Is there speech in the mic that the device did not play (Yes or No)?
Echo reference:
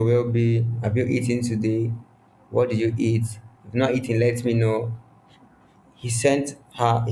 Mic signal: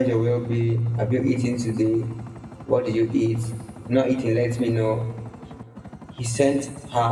No